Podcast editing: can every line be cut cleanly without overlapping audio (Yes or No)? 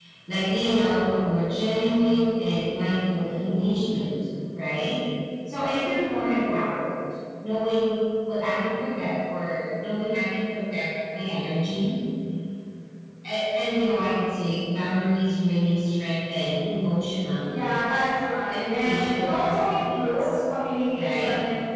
No